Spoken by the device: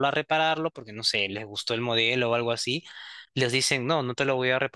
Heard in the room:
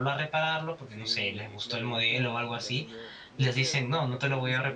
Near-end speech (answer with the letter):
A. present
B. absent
A